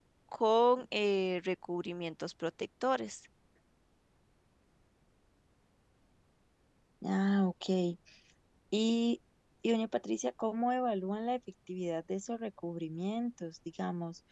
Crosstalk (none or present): none